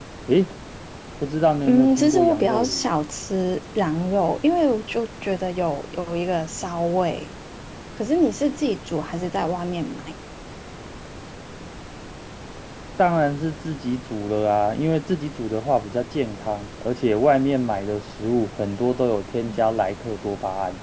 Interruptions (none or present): present